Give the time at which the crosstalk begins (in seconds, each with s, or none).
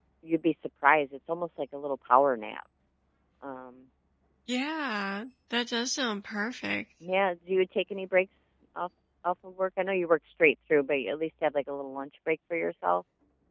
none